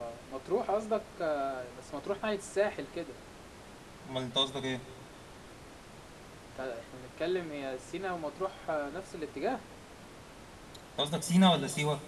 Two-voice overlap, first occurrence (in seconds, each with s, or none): none